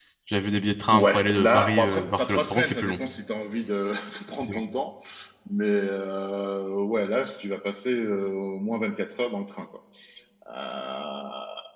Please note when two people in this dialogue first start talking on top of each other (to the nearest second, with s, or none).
1 s